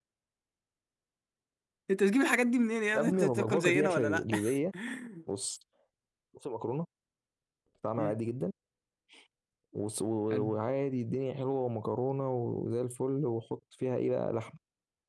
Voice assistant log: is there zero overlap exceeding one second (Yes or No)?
No